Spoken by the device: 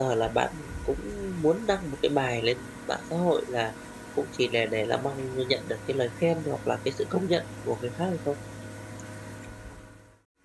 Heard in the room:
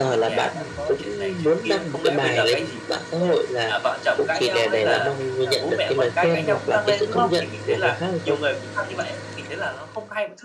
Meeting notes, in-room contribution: present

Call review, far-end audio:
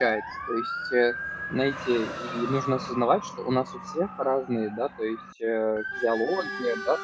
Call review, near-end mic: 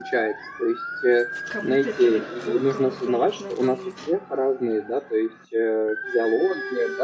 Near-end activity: present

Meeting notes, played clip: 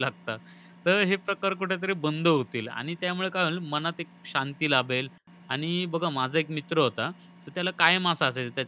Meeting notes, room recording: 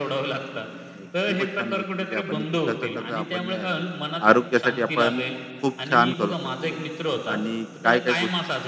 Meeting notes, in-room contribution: present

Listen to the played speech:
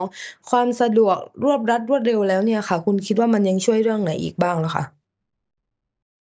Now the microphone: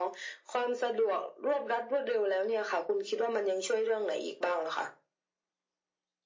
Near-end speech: none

